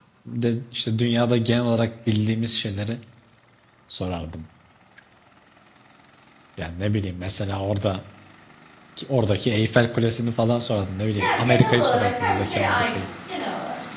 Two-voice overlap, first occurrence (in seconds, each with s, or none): 11.1 s